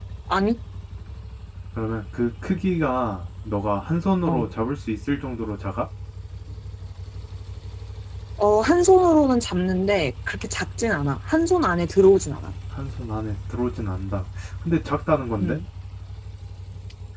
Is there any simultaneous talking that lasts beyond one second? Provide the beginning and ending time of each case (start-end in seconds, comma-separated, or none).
none